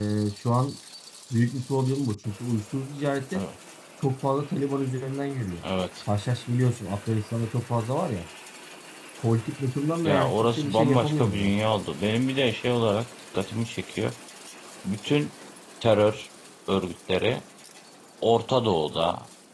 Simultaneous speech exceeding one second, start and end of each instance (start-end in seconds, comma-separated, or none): 10.1-11.5